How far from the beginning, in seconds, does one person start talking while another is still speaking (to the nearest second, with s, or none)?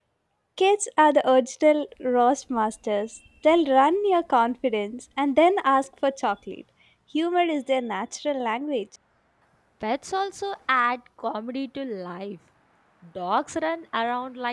none